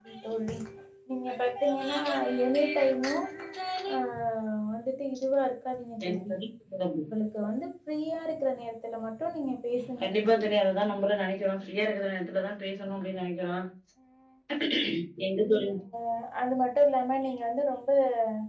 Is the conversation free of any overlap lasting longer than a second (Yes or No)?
Yes